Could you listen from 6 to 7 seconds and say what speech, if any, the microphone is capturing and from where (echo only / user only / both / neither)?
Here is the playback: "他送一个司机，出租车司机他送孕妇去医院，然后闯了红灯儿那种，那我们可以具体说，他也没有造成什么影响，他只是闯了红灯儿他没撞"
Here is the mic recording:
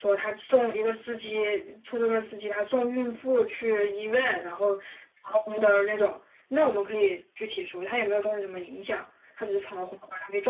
echo only